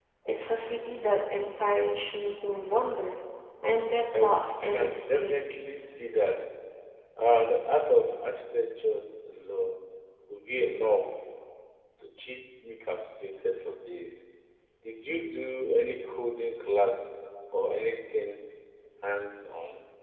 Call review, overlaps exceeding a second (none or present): present